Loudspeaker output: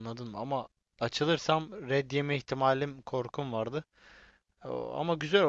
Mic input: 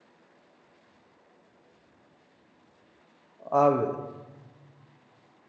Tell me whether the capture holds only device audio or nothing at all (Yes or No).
No